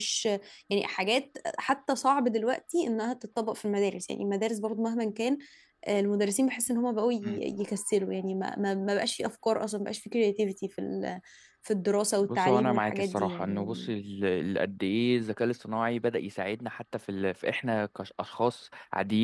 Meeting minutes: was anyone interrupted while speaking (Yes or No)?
Yes